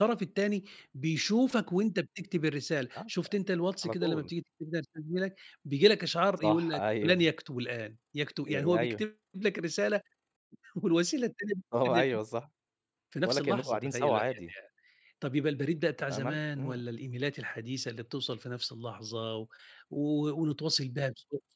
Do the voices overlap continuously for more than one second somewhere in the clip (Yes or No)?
Yes